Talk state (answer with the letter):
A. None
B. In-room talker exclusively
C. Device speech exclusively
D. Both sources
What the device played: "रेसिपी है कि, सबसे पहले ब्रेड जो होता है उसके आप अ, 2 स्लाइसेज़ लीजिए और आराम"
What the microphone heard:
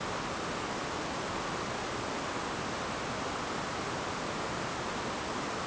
A